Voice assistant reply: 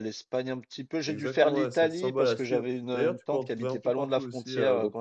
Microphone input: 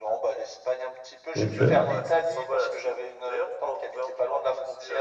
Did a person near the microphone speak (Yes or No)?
Yes